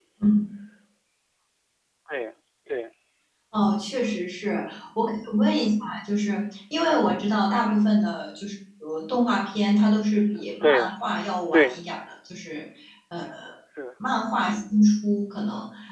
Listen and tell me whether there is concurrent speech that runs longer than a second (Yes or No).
No